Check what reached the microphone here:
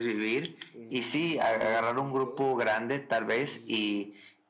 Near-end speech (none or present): present